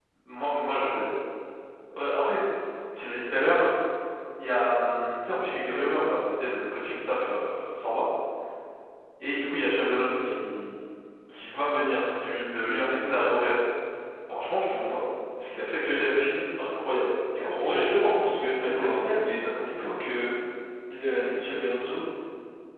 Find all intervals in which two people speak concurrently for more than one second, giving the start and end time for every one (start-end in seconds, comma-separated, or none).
17.4-19.9